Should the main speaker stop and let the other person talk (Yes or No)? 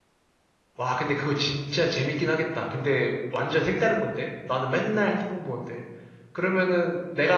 No